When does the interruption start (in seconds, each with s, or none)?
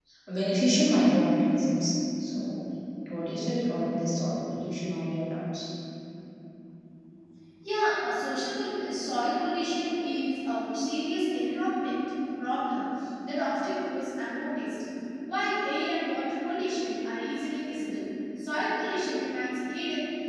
none